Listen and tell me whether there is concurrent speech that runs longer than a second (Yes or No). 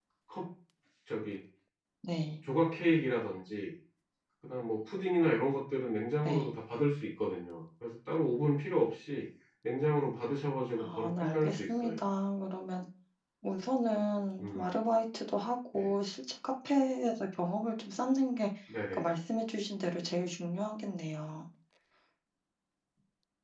Yes